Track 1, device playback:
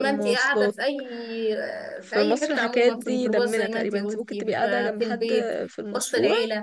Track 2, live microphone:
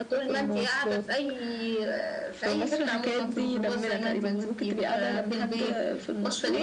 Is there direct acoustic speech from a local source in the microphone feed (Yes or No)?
No